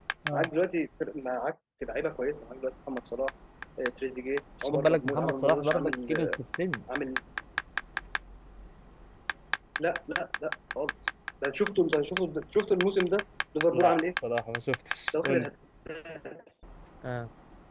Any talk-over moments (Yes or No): Yes